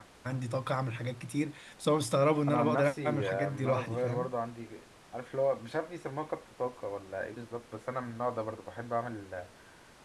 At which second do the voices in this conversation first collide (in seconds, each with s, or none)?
2.5 s